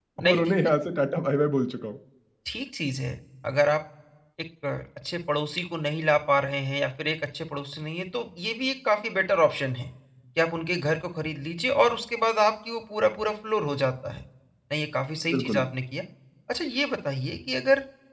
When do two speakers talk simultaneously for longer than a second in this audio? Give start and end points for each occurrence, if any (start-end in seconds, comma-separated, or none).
none